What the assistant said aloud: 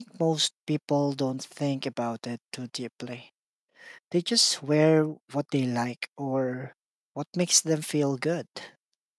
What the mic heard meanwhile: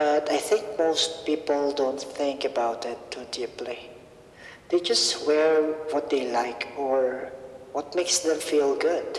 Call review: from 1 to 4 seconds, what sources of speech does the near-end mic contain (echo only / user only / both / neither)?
echo only